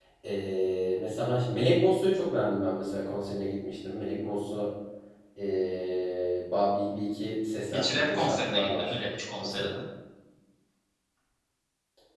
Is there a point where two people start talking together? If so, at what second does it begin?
7.7 s

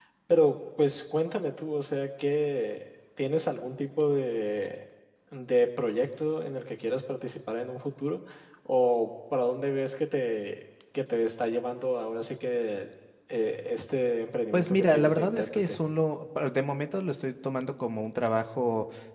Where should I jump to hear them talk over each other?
14.5 s

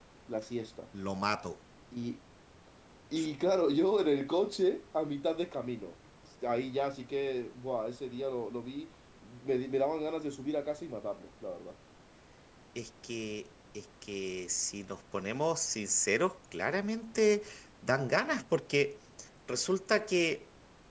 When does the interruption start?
none

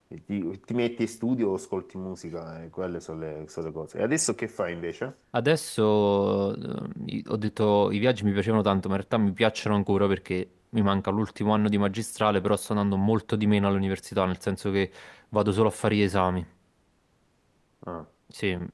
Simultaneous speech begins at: none

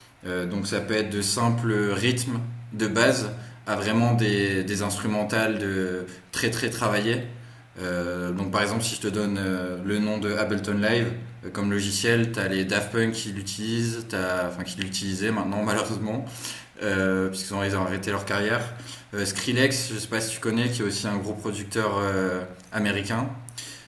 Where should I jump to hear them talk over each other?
none

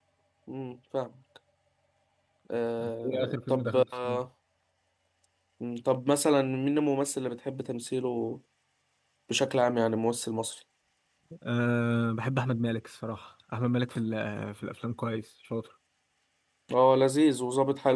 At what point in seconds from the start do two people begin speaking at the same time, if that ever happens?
2.8 s

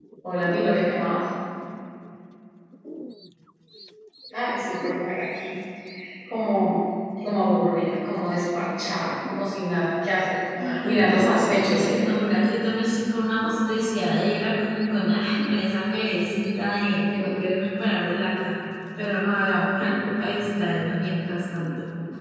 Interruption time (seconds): 10.6 s

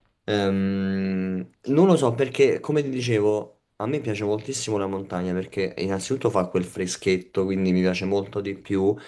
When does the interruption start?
none

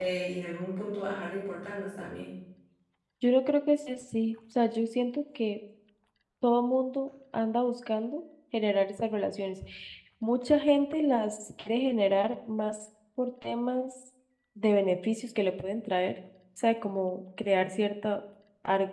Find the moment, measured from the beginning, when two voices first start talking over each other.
none

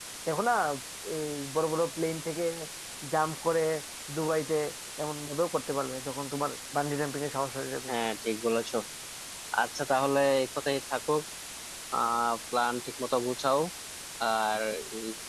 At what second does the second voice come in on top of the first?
none

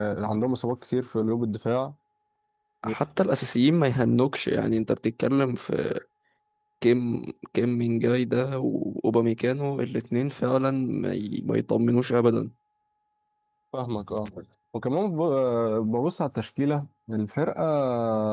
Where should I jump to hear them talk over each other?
none

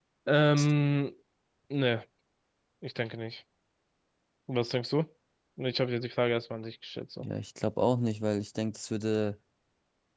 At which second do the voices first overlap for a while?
none

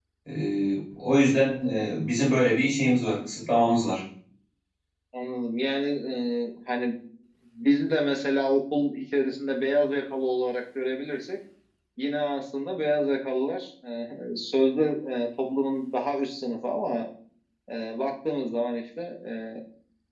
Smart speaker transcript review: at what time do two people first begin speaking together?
none

